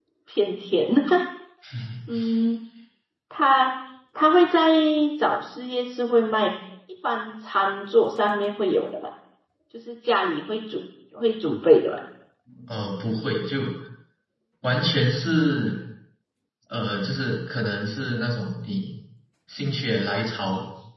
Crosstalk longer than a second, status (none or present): none